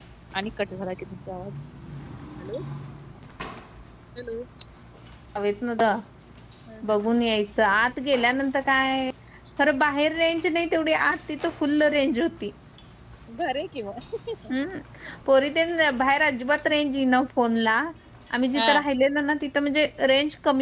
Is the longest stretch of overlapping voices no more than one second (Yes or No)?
Yes